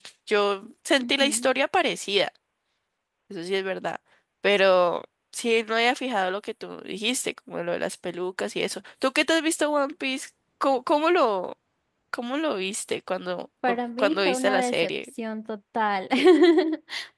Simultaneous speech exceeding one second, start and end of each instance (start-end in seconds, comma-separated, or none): 13.7-15.1